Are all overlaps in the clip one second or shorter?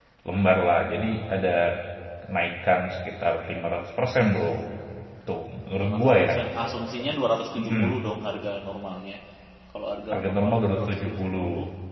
No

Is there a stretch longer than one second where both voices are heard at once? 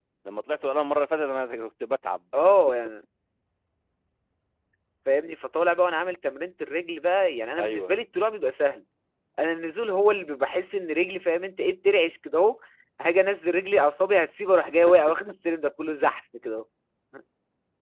No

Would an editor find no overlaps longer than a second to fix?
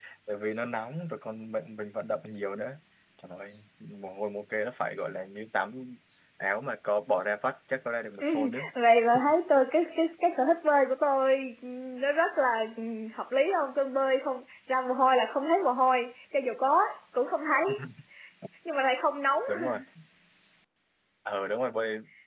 Yes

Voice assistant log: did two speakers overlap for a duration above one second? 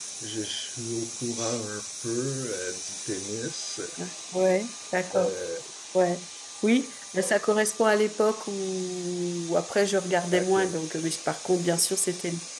No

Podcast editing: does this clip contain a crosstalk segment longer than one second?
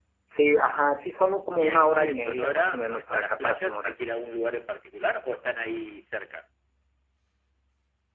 Yes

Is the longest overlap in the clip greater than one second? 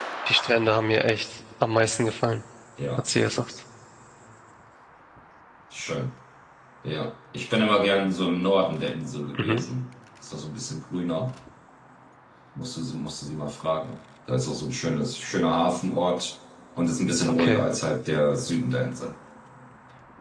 No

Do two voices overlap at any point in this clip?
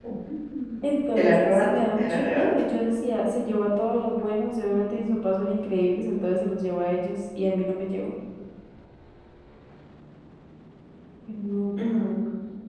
Yes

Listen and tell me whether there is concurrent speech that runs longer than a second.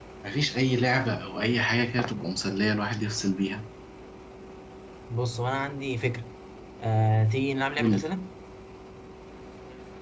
No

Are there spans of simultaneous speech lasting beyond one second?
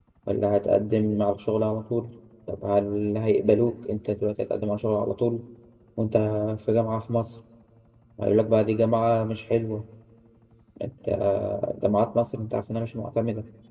No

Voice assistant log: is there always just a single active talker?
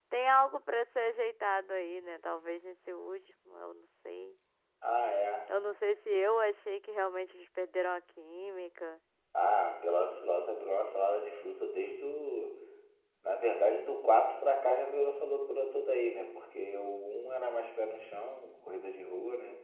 Yes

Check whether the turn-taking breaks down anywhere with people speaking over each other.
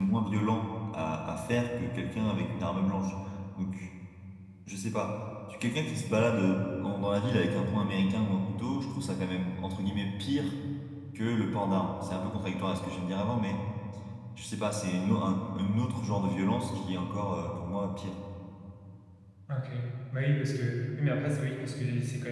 No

